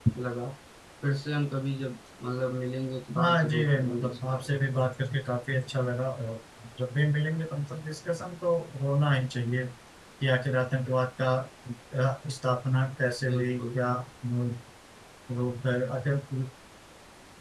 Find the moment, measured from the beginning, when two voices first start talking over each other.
3.2 s

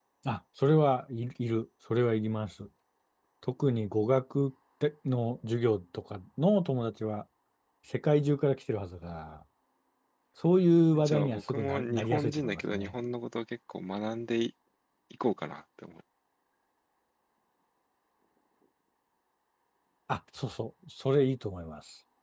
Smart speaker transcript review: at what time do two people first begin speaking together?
10.9 s

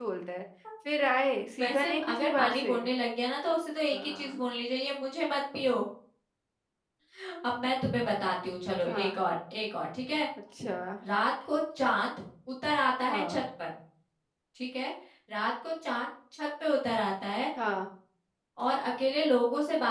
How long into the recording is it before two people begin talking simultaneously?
1.6 s

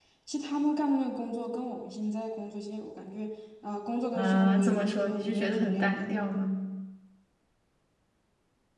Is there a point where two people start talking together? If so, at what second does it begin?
4.2 s

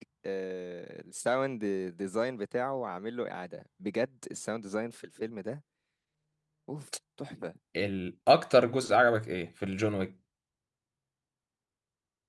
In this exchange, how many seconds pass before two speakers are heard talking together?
none

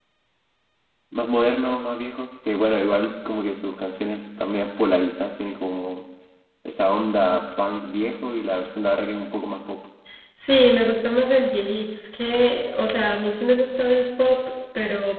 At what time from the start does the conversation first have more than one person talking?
none

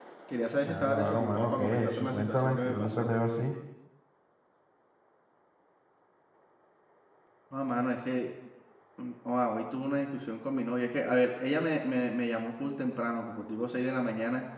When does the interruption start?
0.7 s

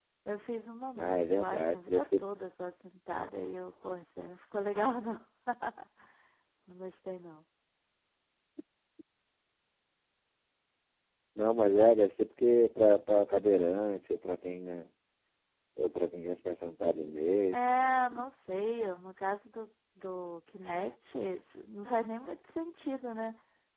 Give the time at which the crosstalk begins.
1.0 s

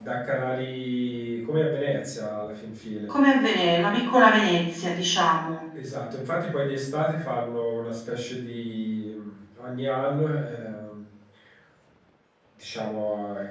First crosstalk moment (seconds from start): none

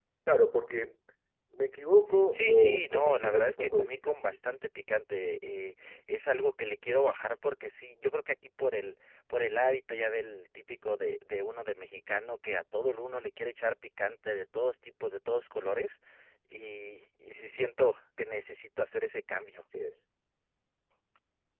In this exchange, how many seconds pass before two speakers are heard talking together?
2.6 s

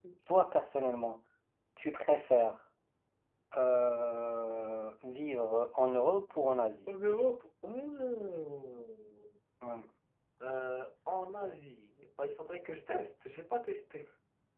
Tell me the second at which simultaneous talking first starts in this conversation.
none

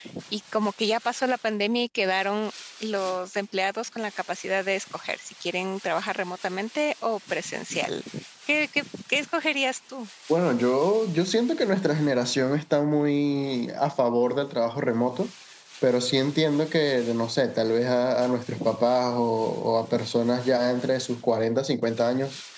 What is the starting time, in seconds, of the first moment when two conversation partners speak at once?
none

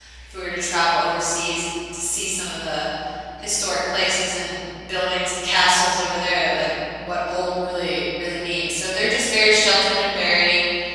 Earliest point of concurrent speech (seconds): none

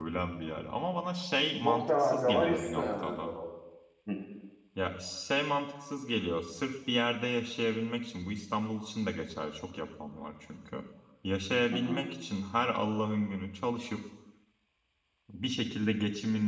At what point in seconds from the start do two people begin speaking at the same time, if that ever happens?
1.6 s

